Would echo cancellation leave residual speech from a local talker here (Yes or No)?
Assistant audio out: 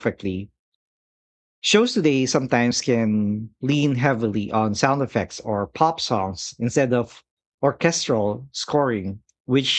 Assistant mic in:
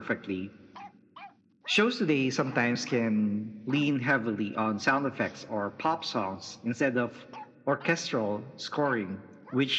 No